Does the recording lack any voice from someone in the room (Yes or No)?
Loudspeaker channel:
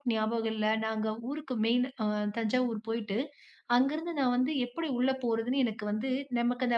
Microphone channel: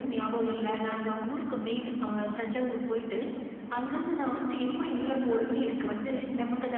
Yes